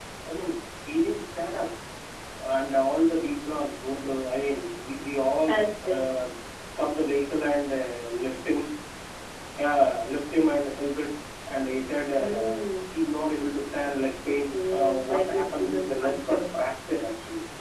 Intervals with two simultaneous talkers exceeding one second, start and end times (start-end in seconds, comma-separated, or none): 14.5-16.4